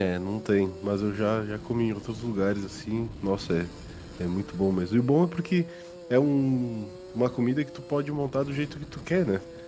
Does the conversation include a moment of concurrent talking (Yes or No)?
No